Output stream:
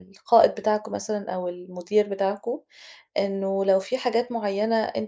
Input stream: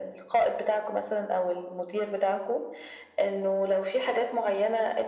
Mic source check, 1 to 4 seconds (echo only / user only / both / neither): echo only